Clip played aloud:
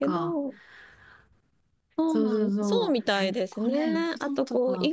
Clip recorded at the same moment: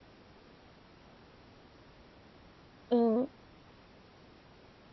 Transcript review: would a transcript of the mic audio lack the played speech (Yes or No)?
Yes